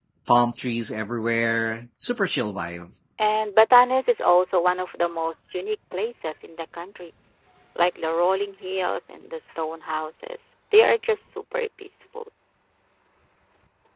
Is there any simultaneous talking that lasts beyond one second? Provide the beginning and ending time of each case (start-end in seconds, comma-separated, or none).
none